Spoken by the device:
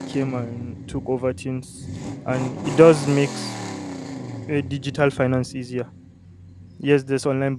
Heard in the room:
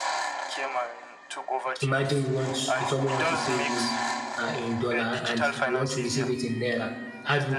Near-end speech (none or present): present